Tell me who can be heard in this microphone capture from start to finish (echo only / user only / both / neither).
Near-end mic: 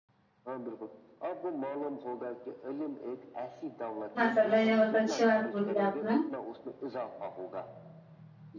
both